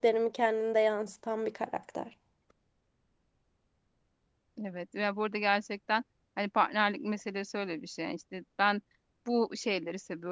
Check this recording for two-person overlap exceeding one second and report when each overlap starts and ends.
none

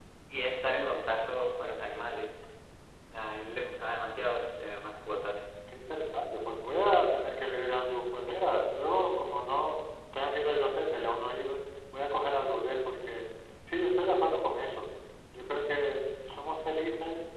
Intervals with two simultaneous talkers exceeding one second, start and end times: none

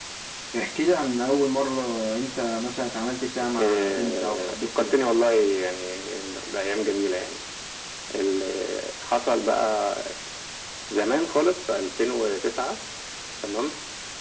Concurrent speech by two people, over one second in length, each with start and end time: 3.6-5.0

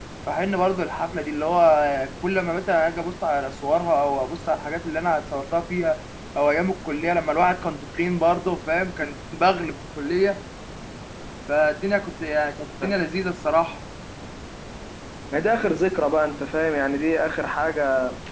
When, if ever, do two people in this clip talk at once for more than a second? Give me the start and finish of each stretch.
none

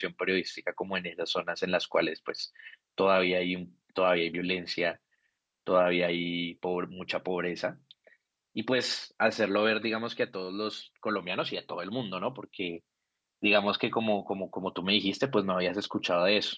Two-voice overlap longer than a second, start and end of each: none

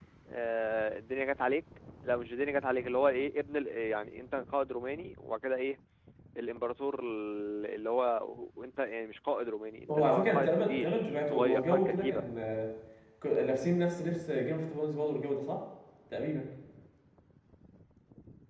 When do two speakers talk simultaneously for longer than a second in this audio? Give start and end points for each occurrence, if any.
9.9-12.2

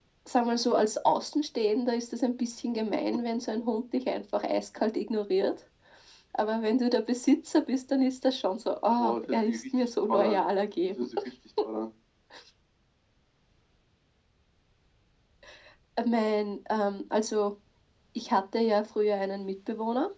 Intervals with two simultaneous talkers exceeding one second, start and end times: 9.0-10.4

